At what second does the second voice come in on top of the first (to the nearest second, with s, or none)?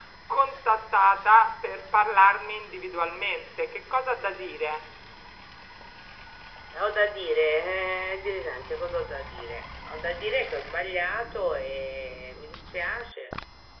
none